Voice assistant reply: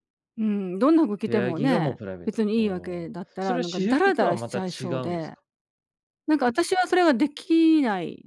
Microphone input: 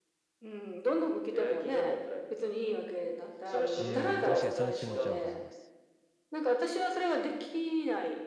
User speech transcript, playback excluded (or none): うーん、確かにその気持ちは分かります。